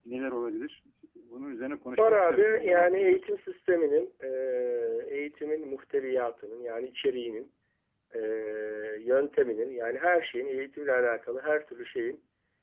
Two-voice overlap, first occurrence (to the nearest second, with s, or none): 2 s